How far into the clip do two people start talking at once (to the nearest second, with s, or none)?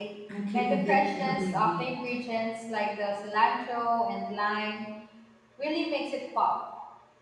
1 s